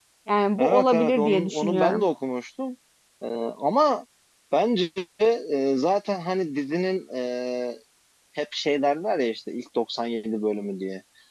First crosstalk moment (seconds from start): 0.6 s

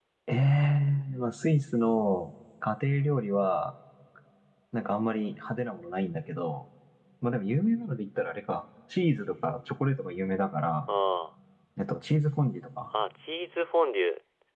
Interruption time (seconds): none

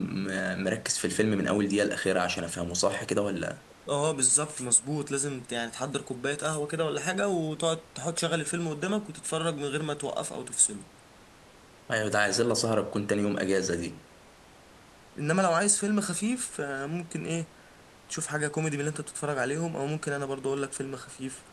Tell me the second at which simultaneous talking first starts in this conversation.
none

